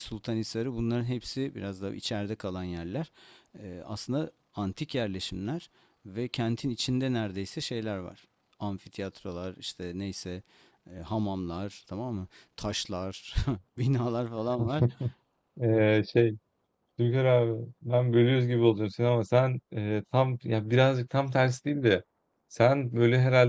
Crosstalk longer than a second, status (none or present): none